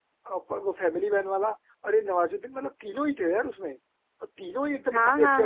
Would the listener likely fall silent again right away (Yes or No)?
No